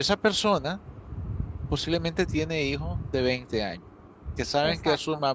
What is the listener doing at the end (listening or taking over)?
listening